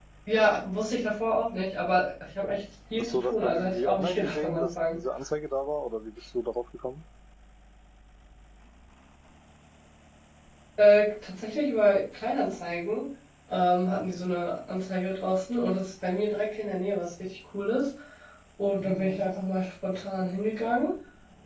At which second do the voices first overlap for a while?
3.0 s

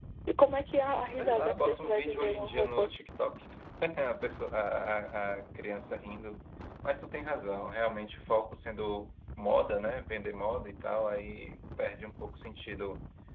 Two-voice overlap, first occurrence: 1.2 s

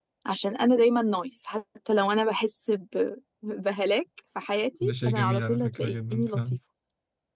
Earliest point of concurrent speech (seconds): 4.8 s

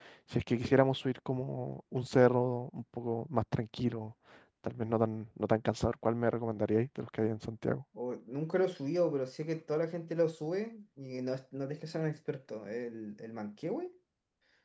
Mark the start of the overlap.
none

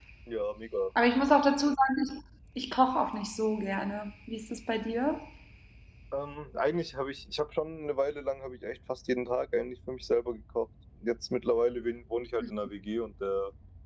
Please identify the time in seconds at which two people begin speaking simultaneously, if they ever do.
none

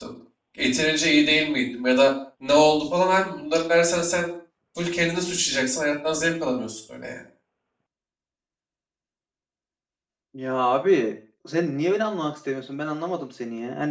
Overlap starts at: none

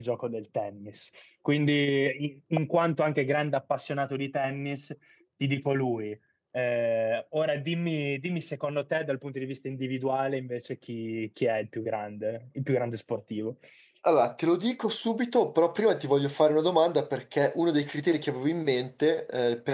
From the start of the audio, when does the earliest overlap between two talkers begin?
none

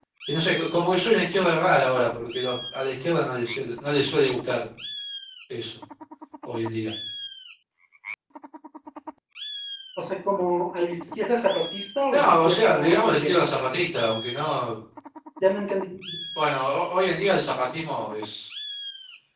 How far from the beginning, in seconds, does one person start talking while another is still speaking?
12.1 s

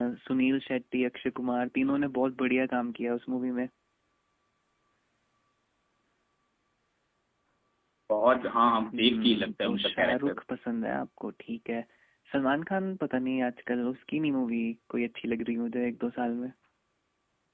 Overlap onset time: 8.9 s

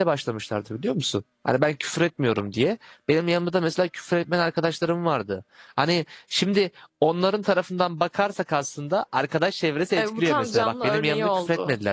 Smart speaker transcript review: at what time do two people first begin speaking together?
10.0 s

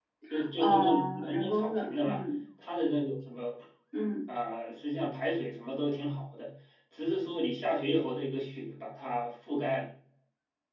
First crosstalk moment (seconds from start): 0.6 s

